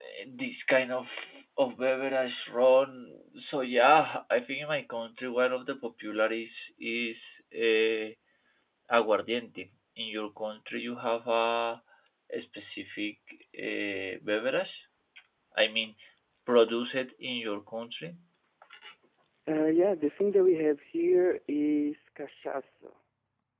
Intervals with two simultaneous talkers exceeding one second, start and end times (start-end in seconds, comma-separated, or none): none